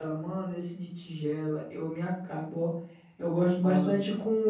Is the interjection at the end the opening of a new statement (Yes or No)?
No